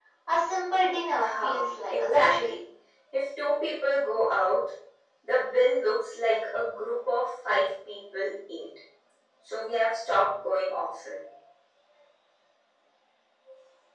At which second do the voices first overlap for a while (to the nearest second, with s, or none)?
1 s